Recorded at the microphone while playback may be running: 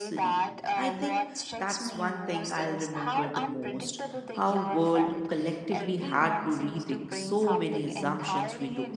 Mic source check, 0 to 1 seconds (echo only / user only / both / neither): both